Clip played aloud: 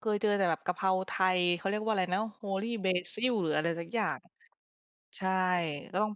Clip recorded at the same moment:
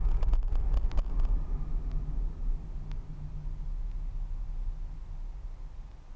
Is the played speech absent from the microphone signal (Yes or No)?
Yes